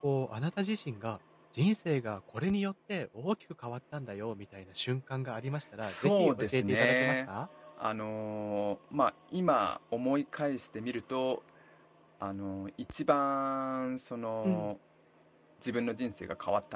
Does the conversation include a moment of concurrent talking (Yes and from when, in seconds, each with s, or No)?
Yes, from 5.8 s